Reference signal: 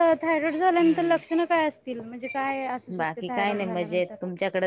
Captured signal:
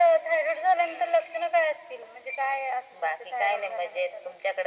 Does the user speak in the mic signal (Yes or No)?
No